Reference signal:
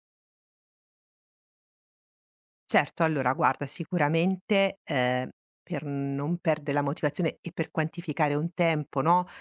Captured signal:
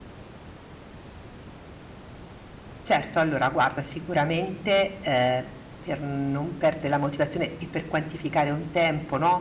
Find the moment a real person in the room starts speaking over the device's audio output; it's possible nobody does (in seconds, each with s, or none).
none